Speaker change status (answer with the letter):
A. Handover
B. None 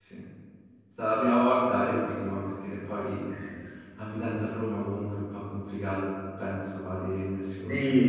A